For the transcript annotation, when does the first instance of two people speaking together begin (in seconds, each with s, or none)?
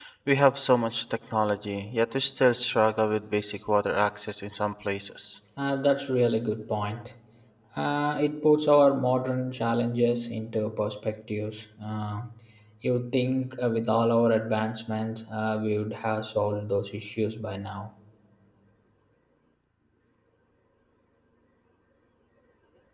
none